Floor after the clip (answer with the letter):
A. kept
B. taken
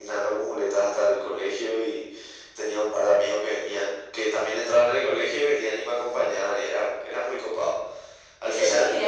B